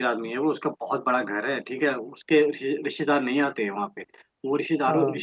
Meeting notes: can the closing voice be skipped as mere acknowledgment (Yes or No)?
Yes